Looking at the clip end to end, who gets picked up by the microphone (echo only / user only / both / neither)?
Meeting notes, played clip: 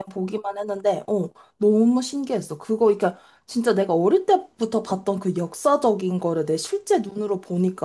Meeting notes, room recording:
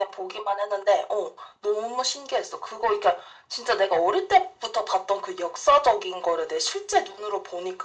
echo only